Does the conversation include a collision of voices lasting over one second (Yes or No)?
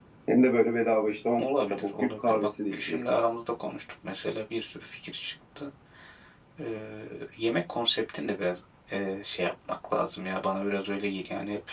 Yes